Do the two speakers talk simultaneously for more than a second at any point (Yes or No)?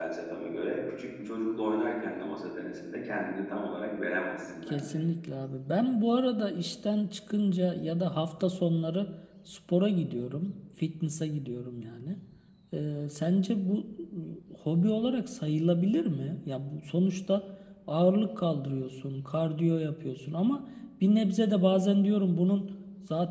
No